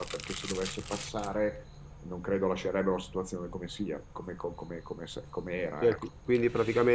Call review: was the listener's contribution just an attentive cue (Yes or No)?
No